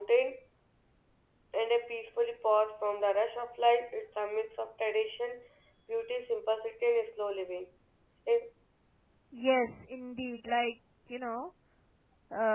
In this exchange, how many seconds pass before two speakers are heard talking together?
none

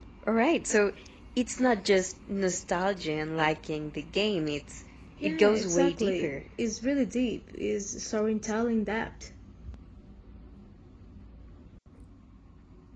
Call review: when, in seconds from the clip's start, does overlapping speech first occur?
5.2 s

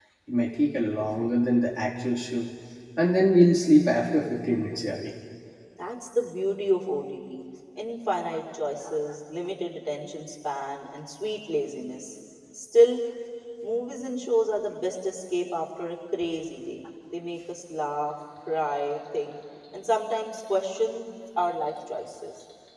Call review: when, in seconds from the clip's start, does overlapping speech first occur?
none

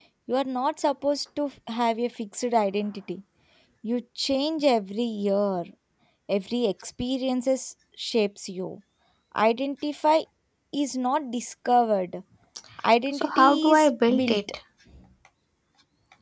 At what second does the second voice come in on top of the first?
13.1 s

